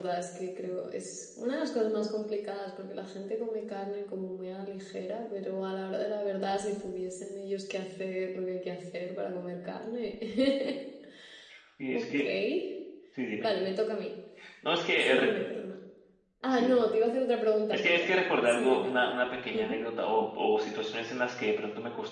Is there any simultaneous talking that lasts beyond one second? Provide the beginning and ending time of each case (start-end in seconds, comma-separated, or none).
17.7-18.9